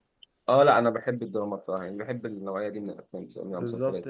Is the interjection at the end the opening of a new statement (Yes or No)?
Yes